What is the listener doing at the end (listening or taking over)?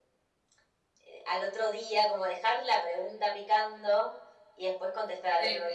listening